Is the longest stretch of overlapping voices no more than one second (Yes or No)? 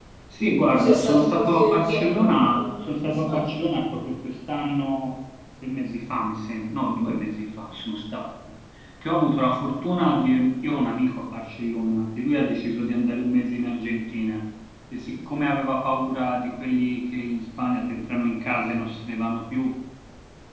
No